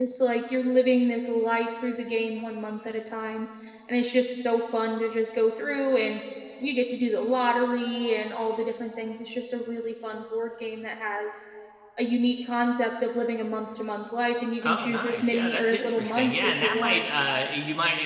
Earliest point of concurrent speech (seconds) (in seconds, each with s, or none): 14.6 s